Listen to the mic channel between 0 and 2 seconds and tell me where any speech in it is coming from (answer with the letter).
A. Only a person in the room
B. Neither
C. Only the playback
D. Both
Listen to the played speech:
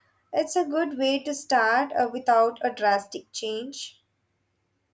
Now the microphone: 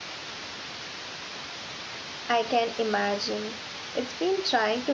B